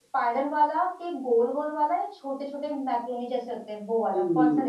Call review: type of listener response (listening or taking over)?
taking over